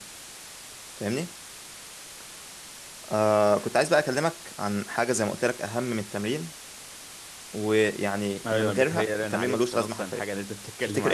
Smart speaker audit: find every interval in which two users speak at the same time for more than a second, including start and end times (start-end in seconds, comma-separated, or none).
8.4-10.2